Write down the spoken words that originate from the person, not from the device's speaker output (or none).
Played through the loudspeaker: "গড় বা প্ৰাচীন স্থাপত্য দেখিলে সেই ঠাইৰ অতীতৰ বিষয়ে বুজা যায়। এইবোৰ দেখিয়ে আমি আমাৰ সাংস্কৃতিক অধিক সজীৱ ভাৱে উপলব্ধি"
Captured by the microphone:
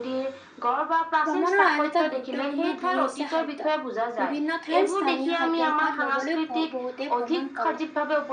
ভ্ৰমণৰ আন এটা গুৰুত্বপূৰ্ণ দি হৈছে খাদ্য। বিভিন্ন ঠাইৰ স্থানীয় খাদ্যৰ সোৱাদ লবলৈ বহুতে ভ্ৰমণ কৰে।